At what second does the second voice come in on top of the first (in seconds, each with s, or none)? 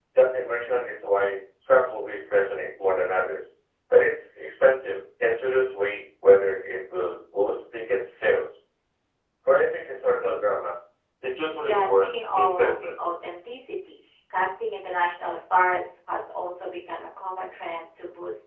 11.6 s